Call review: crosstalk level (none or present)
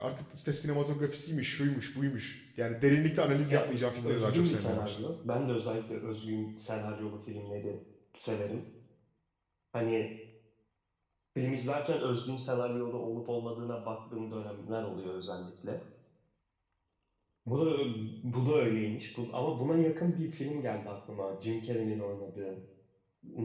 present